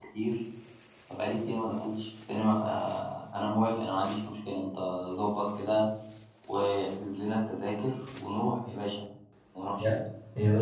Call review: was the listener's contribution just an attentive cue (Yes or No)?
No